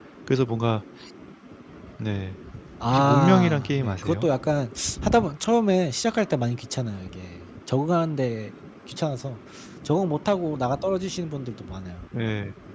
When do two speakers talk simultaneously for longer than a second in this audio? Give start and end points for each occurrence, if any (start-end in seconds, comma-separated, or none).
2.9-4.3